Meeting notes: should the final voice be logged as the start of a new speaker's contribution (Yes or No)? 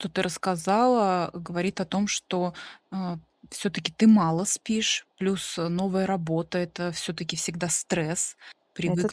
No